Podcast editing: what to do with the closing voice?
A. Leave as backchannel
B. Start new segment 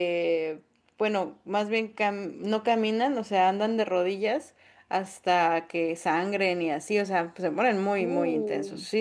A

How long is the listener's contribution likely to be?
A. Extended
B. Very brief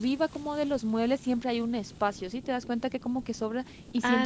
B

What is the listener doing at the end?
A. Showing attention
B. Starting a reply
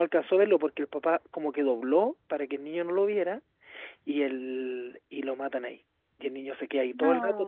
A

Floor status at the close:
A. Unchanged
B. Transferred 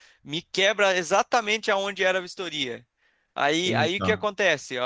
A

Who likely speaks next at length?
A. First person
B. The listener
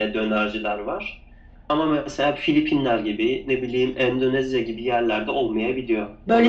B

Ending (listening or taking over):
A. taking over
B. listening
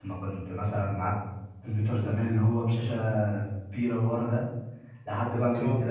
B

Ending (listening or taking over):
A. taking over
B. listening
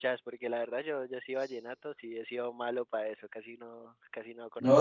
A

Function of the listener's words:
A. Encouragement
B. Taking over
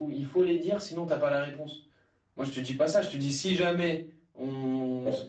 B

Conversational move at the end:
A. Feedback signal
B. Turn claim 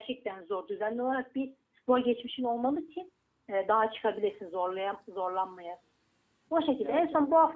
A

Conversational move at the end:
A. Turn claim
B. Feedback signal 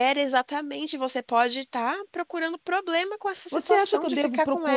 A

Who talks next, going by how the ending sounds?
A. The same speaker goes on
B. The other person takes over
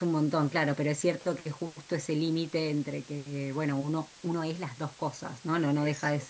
A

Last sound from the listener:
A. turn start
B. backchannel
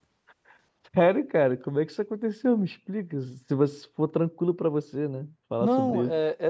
A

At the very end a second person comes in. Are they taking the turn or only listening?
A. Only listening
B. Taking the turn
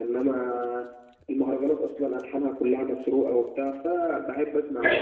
B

